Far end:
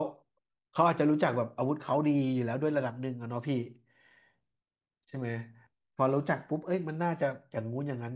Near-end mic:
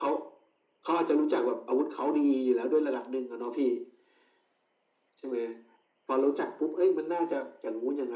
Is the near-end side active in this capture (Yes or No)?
No